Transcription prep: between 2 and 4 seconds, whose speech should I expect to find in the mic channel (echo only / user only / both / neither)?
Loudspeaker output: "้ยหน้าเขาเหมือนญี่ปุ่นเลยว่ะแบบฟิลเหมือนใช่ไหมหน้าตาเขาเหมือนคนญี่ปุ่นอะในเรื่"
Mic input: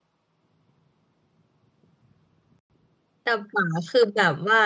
user only